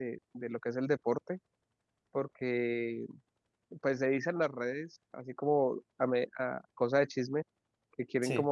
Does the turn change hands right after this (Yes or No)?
No